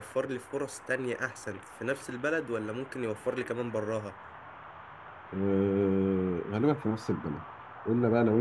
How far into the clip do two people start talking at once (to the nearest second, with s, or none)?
none